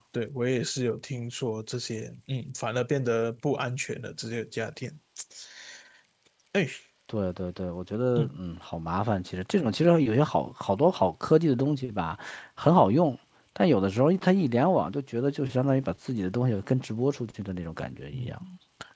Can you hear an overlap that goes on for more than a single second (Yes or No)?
No